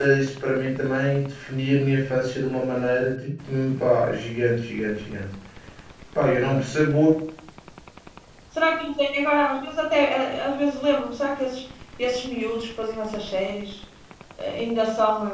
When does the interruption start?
none

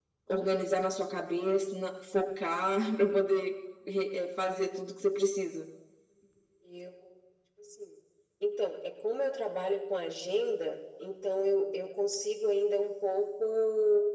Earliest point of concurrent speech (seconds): none

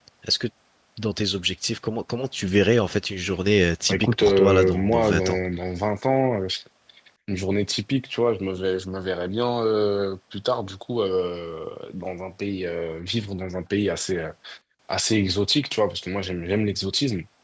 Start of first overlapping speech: 3.9 s

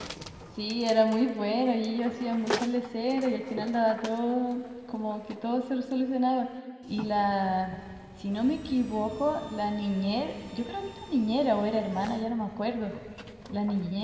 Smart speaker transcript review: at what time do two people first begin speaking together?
none

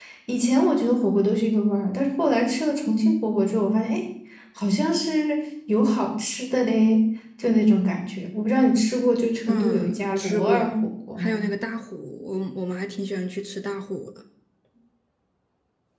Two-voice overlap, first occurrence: 9.5 s

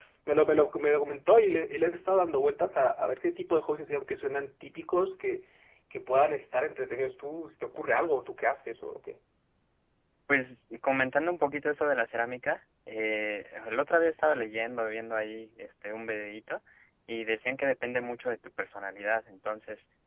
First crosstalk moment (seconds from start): none

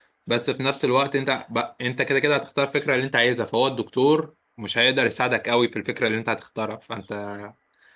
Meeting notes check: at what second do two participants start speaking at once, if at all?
none

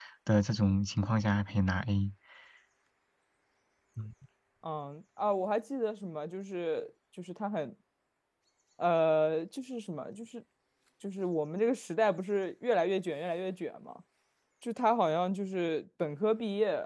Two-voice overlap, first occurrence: none

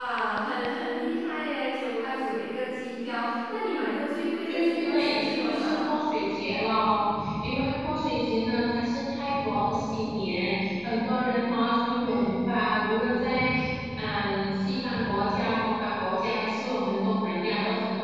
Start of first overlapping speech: 4.5 s

